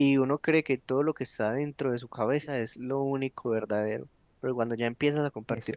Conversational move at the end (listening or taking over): listening